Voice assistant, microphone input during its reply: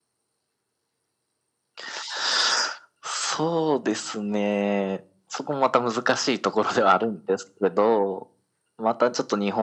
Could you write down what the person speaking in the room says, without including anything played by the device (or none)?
none